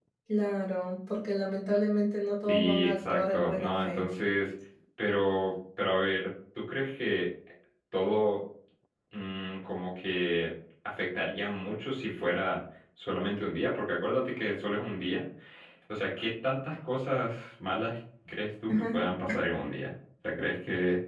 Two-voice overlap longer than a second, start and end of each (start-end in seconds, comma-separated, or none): 2.5-4.1